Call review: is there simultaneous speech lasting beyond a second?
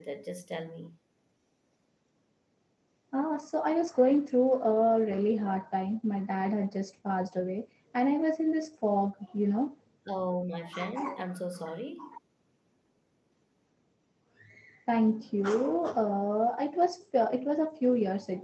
No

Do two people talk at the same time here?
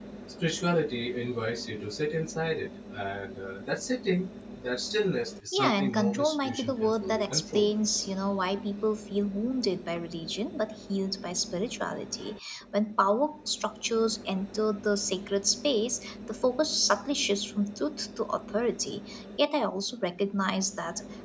Yes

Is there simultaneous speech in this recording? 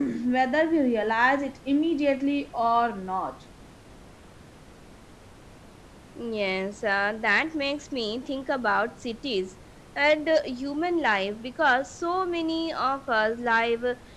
No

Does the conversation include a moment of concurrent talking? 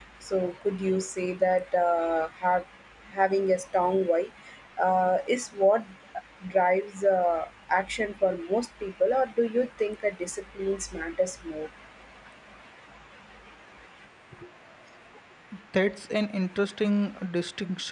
No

